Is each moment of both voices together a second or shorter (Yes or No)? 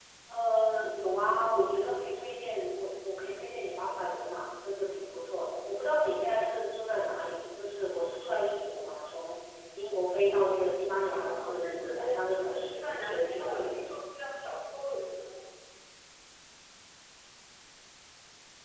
No